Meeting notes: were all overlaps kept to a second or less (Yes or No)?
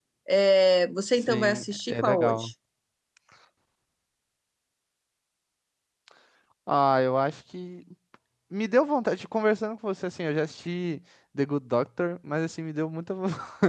No